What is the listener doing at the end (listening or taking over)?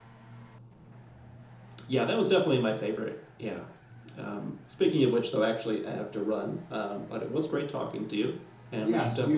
taking over